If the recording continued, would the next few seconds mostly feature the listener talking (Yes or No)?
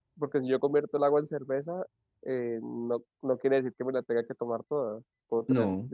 No